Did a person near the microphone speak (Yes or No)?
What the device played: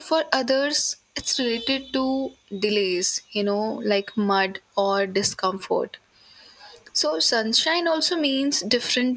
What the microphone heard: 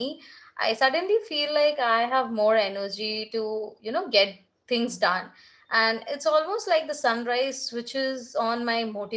Yes